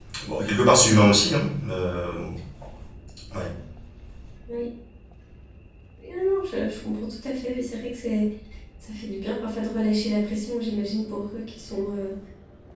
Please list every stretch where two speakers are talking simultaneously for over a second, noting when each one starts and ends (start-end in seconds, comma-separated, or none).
none